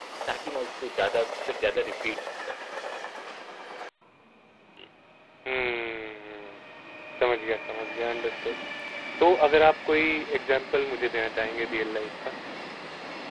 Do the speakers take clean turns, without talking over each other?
Yes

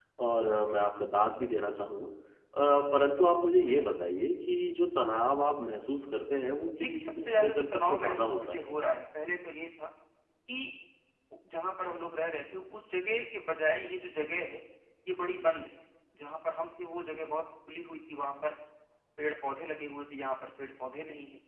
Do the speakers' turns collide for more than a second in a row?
Yes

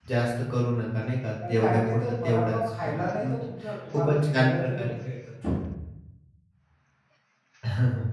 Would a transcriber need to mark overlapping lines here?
Yes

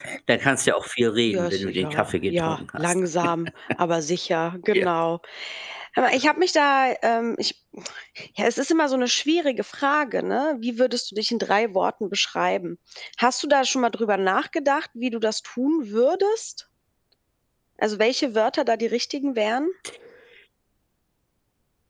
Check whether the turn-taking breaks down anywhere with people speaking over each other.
Yes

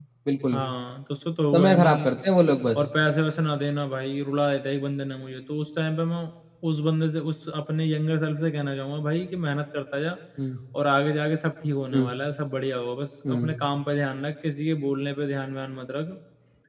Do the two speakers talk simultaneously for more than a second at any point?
No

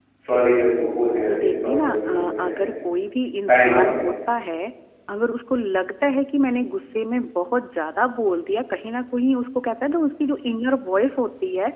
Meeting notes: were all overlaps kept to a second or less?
No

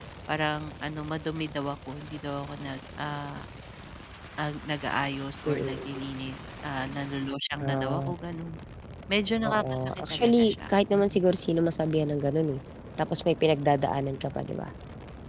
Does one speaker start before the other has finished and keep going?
Yes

